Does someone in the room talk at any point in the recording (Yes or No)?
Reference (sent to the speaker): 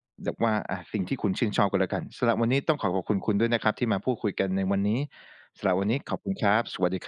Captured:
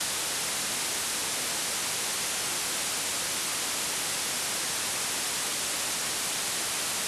No